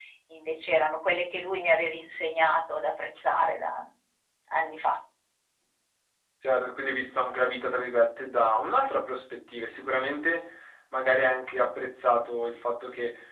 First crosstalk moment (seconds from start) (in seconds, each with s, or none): none